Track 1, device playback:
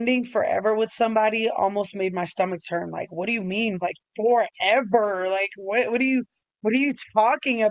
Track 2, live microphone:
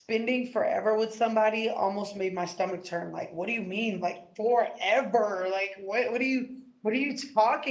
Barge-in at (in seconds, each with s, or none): none